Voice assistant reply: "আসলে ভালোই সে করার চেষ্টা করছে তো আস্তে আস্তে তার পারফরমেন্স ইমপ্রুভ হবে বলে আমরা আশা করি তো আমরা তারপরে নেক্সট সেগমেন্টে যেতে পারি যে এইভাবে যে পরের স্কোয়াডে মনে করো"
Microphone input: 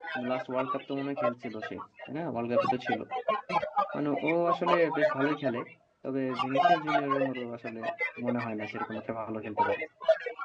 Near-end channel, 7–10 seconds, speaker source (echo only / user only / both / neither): both